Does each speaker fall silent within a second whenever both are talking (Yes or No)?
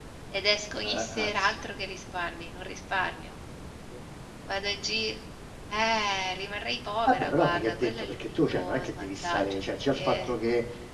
No